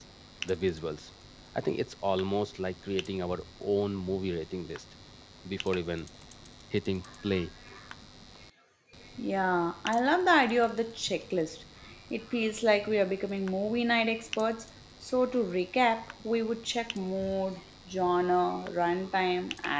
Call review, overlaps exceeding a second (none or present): none